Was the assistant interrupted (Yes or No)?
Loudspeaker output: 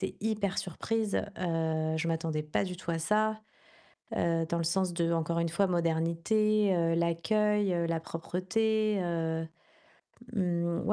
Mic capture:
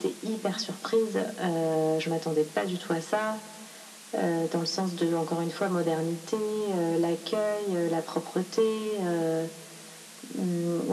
No